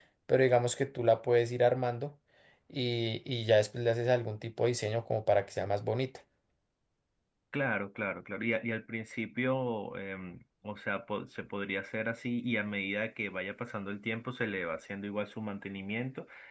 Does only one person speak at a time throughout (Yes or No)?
Yes